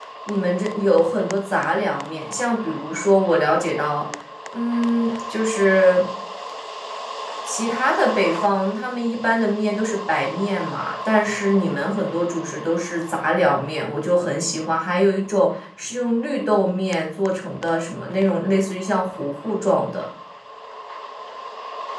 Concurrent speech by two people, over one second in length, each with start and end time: none

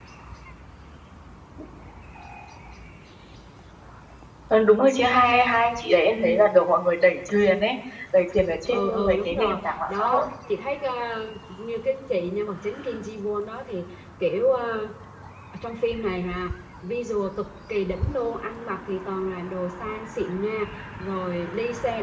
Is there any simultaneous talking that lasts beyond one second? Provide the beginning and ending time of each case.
8.7-10.3

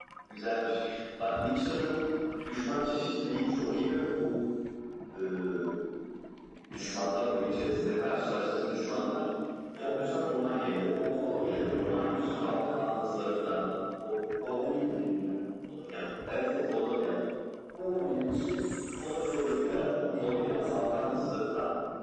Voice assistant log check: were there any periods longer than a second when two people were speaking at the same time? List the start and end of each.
11.4-12.7, 19.0-21.1

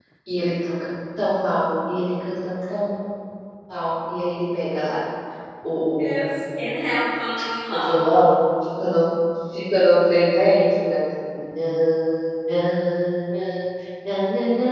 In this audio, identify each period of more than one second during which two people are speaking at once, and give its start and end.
none

